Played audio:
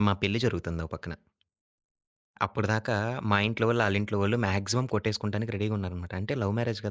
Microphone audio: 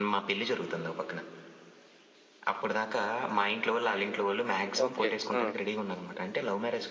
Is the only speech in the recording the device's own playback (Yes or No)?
No